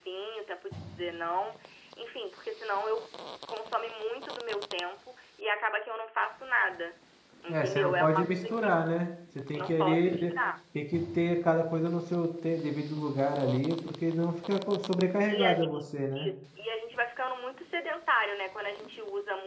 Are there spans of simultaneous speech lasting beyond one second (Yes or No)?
Yes